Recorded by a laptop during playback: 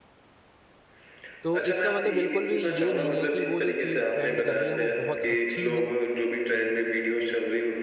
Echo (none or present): present